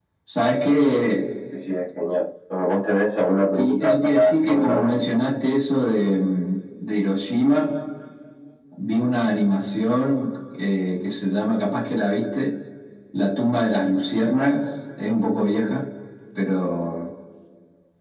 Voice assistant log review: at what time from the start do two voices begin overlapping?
3.5 s

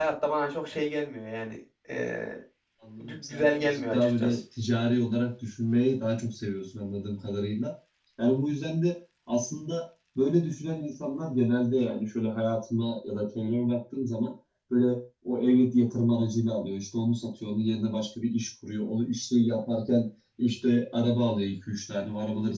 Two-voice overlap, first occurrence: 3.0 s

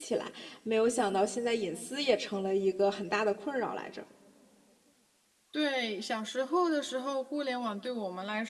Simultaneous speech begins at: none

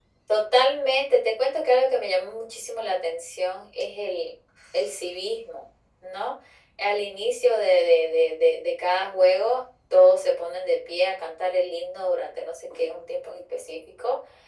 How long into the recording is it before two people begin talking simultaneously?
none

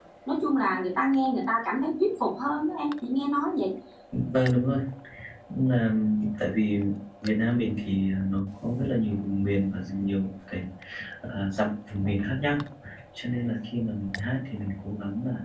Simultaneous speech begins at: none

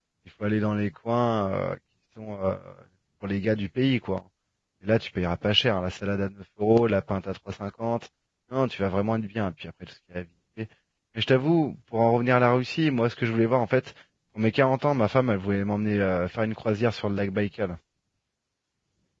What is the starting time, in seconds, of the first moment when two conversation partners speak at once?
none

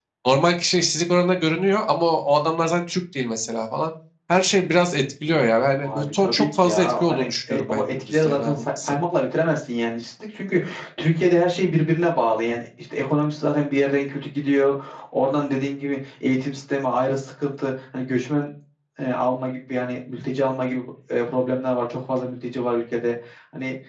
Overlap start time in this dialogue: 5.8 s

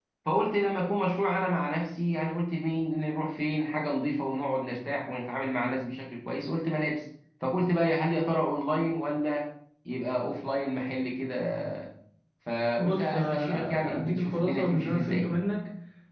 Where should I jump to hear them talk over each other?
12.8 s

